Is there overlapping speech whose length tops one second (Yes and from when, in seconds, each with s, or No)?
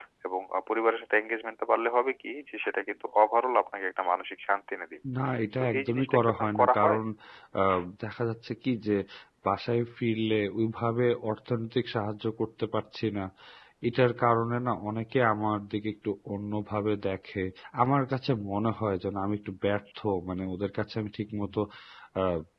Yes, from 5.6 s